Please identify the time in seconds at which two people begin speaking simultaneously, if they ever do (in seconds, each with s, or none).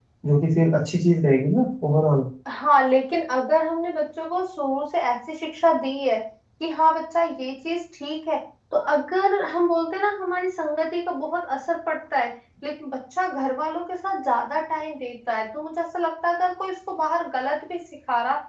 none